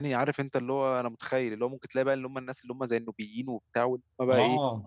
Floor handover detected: Yes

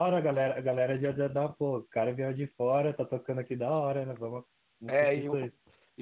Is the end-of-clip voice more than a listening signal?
Yes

